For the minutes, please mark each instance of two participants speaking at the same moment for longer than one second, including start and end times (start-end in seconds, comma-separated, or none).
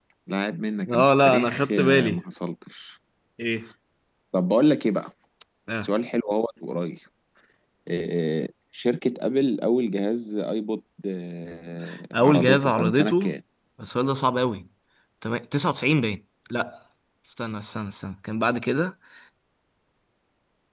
0.9-2.2, 12.1-13.4